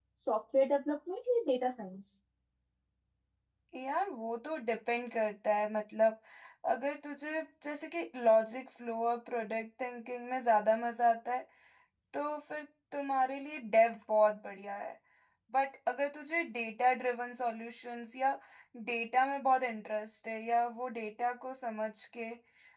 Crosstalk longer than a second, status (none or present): none